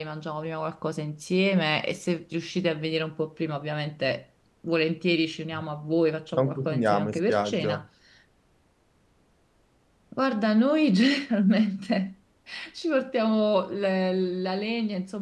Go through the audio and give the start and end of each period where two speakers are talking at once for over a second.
6.3-7.8

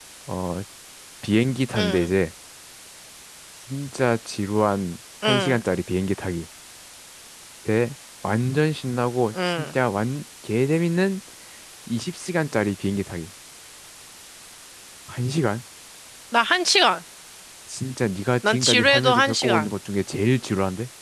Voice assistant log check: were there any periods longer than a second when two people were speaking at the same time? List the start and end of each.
18.4-19.7

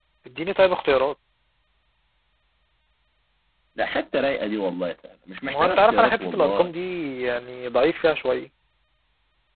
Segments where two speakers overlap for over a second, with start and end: 5.5-6.7

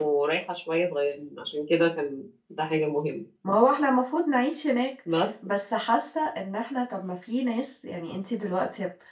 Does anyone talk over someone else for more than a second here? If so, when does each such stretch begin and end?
none

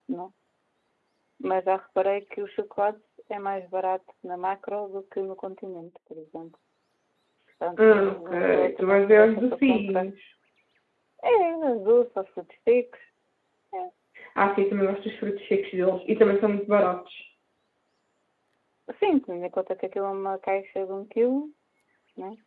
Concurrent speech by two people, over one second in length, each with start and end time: 7.8-10.1

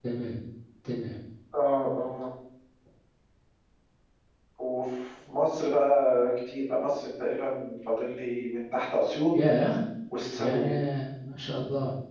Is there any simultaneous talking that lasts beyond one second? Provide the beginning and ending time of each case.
none

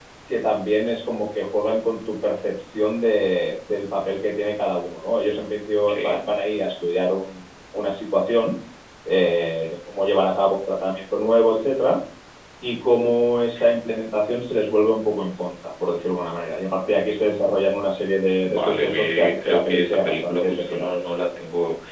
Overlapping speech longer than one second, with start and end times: 18.4-20.9

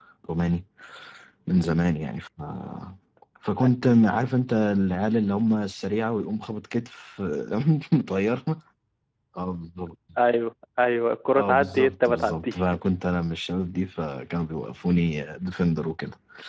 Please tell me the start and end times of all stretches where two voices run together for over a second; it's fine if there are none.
11.3-12.5

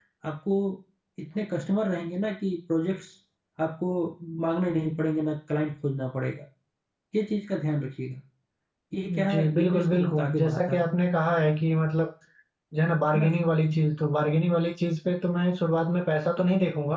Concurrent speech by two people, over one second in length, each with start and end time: 9.3-10.8

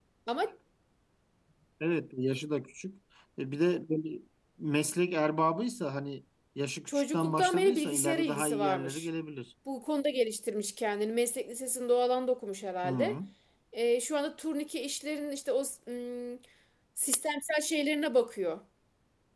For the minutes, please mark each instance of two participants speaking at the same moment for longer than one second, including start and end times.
6.9-9.1

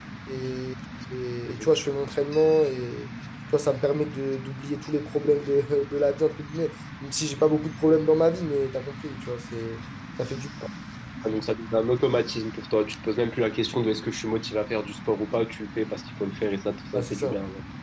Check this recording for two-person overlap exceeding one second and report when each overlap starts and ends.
none

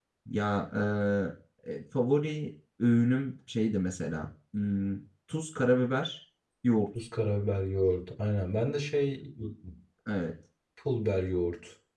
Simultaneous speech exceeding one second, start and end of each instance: none

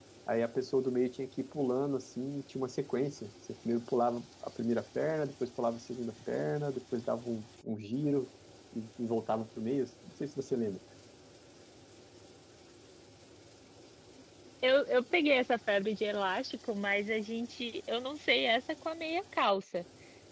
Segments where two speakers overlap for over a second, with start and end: none

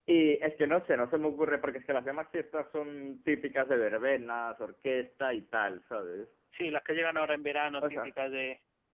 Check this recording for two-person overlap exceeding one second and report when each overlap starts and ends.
none

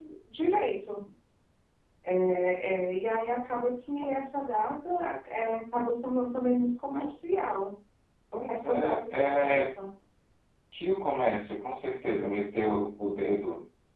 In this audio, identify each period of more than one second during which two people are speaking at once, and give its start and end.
8.5-9.7

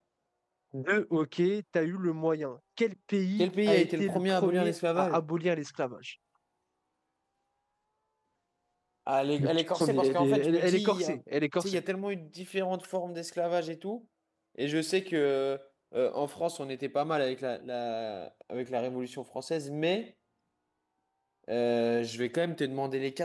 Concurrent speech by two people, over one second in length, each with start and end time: 3.4-5.2, 9.4-11.2

